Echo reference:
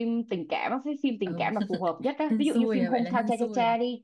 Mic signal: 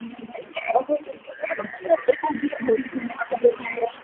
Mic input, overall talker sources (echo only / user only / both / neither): echo only